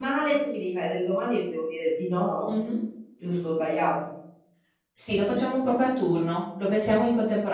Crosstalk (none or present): none